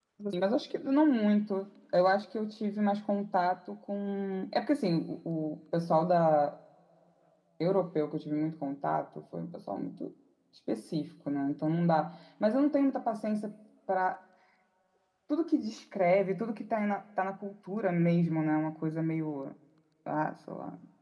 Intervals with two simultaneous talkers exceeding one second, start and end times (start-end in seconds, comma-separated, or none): none